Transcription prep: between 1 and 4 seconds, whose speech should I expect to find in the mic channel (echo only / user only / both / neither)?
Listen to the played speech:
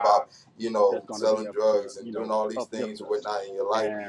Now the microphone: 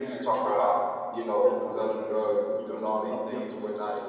echo only